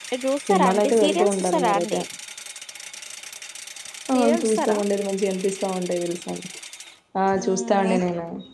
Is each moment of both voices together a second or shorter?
No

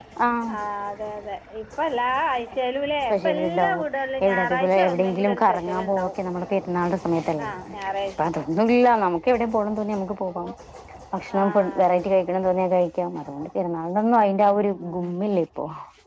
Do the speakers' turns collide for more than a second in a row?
Yes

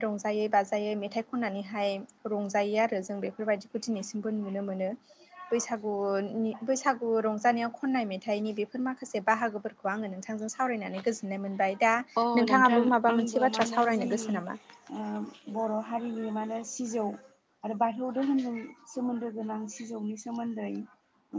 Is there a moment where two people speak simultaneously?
Yes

